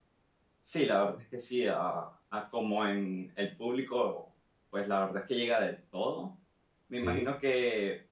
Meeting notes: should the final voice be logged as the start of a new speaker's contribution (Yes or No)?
No